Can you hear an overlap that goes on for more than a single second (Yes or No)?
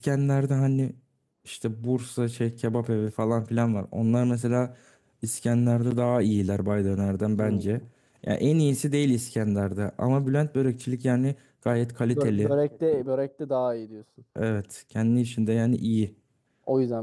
No